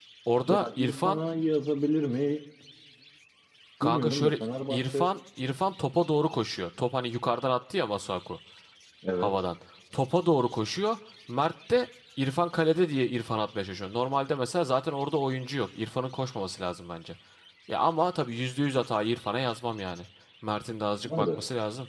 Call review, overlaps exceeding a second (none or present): present